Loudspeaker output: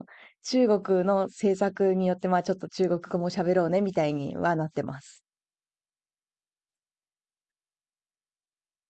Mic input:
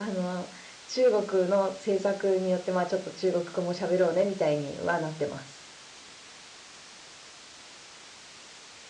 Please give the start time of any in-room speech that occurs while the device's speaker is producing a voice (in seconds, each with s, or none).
none